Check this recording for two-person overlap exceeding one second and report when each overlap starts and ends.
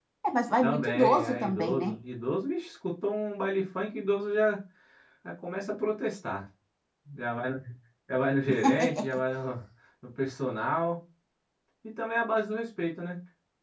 0.6-1.9

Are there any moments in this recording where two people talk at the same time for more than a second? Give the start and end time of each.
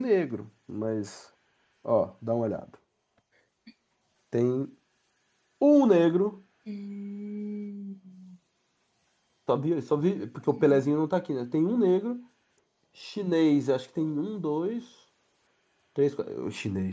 none

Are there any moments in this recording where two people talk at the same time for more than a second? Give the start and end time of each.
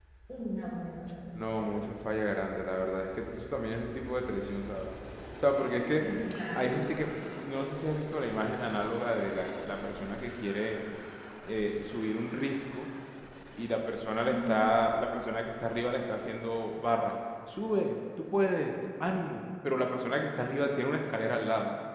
none

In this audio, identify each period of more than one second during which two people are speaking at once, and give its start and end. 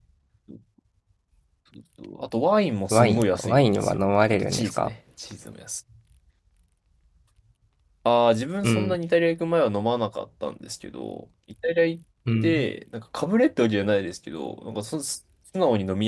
2.9-4.9

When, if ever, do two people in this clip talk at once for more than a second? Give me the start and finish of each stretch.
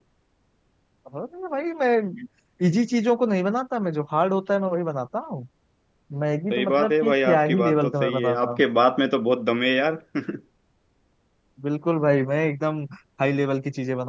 6.5-8.6

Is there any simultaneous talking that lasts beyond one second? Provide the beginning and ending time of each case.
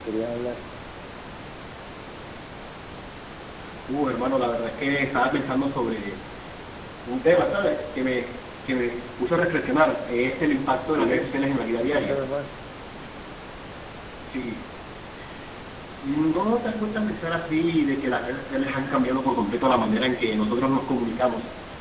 none

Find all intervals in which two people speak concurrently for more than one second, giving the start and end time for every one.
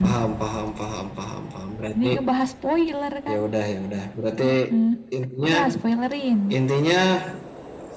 none

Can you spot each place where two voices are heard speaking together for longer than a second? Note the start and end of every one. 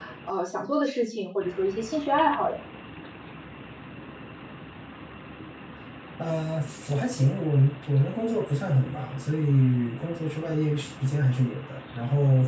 none

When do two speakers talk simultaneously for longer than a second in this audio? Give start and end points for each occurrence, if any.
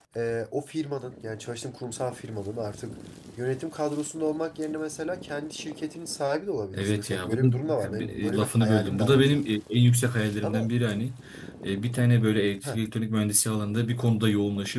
6.7-9.6

